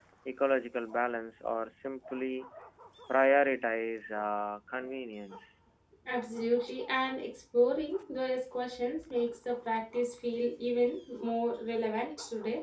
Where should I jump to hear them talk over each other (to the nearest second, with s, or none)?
none